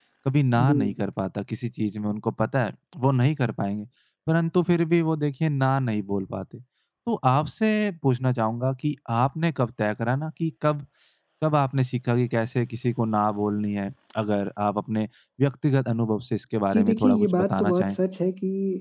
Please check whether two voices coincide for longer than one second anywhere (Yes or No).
Yes